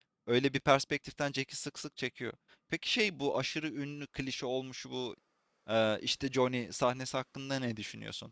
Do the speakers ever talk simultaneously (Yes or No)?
No